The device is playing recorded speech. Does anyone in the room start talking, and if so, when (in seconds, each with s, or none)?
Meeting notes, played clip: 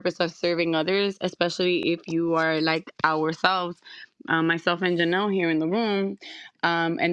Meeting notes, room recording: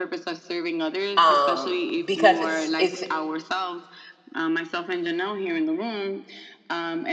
1.2 s